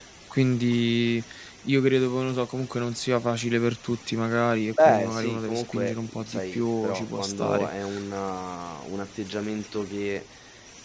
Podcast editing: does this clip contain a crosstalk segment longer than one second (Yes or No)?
Yes